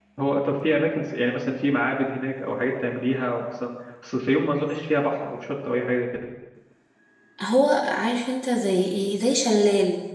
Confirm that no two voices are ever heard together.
Yes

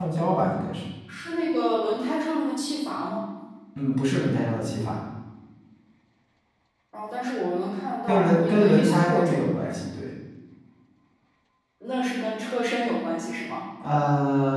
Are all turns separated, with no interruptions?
No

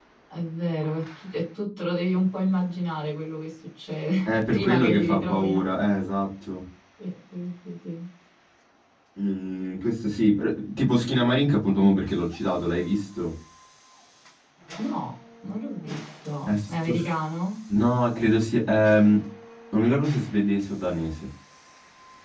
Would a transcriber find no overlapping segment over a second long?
No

